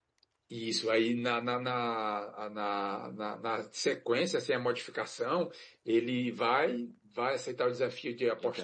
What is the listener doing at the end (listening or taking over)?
listening